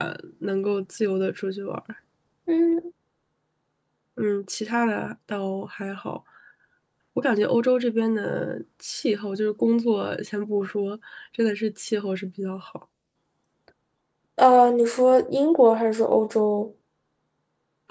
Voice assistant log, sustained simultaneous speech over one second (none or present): none